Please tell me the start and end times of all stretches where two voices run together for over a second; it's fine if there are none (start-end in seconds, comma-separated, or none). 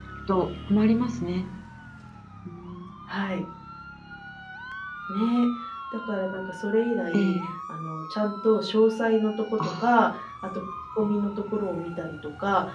none